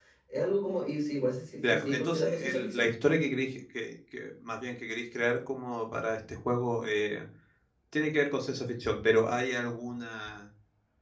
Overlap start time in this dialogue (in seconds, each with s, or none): 1.6 s